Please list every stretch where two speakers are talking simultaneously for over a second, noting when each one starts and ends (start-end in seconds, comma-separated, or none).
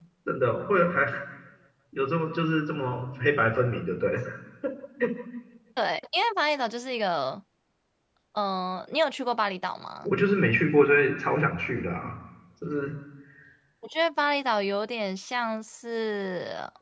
none